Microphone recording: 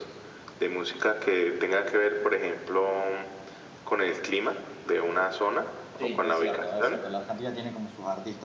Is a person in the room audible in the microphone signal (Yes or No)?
Yes